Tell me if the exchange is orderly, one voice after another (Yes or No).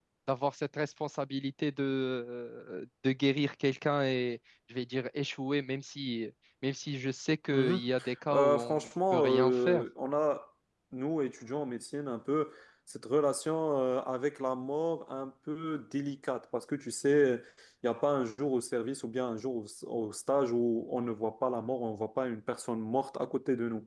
No